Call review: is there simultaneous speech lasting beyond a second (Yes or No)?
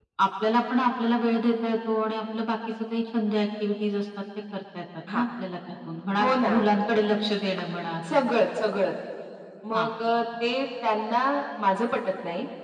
No